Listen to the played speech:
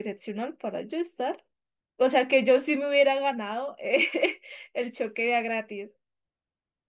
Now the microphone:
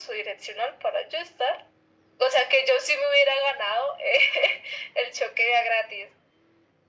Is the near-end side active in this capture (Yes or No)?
No